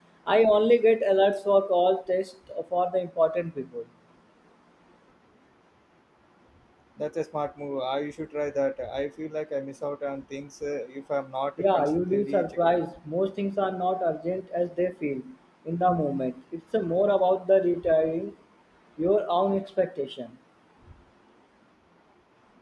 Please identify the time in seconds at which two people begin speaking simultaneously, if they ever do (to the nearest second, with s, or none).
12 s